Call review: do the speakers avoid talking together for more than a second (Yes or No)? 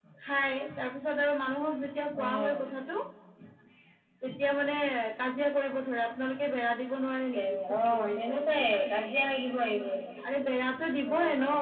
No